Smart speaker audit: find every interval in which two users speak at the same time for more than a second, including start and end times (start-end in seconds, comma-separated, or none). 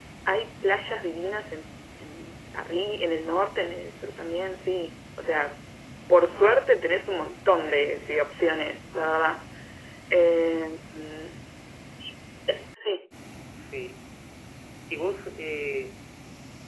none